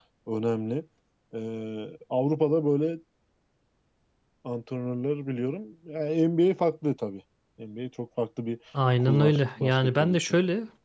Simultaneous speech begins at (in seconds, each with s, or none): 9.0 s